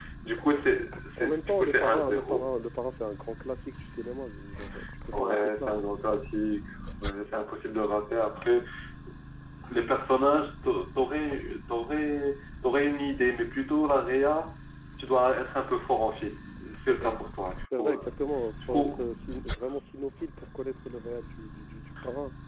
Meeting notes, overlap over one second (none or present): present